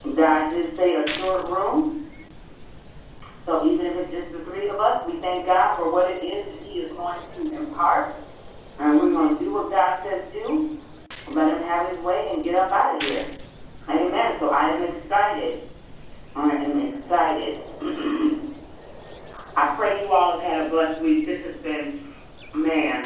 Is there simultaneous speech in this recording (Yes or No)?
No